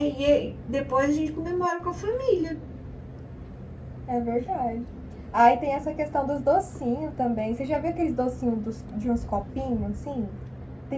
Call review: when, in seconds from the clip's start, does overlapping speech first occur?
none

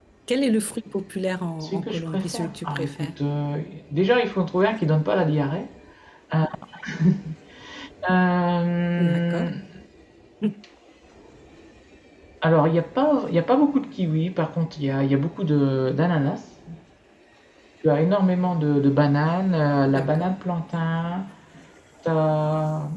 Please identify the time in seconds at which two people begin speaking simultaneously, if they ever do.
2 s

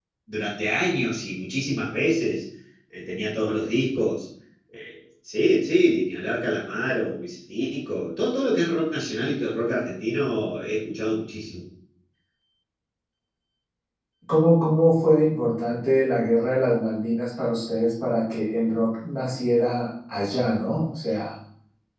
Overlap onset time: none

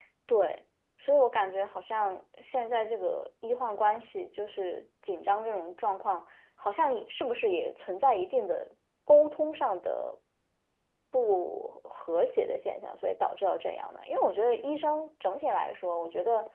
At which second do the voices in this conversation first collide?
none

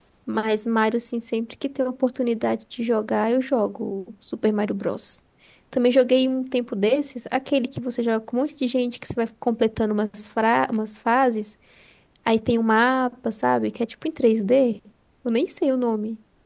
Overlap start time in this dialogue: none

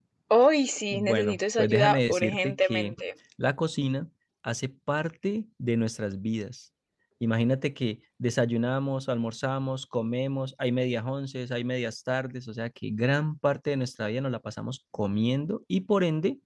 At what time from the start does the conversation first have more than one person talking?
1 s

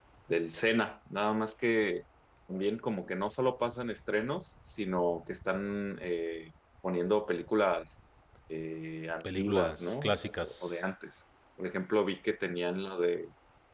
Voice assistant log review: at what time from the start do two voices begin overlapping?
9 s

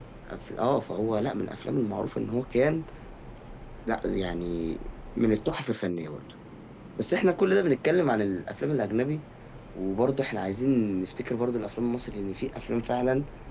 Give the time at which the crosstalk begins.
none

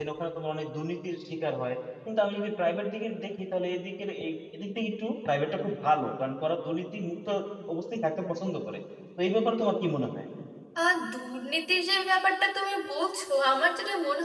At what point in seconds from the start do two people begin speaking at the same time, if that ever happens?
none

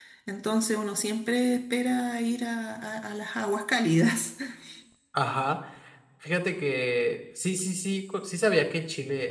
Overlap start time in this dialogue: none

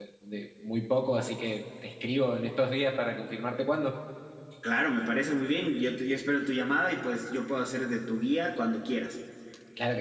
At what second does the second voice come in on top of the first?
none

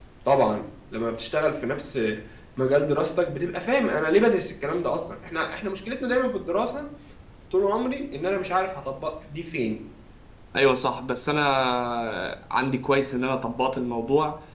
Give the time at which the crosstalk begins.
none

